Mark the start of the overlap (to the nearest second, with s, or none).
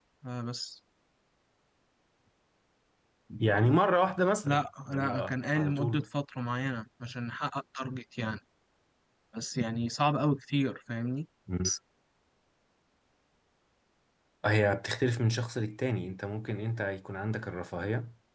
4 s